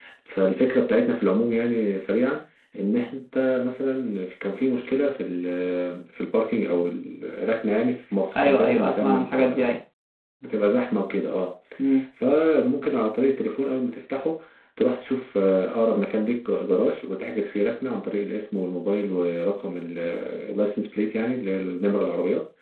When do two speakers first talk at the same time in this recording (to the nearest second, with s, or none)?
8 s